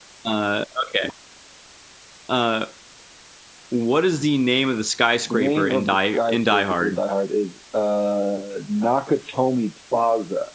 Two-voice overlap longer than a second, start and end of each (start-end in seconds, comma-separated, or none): 5.3-7.0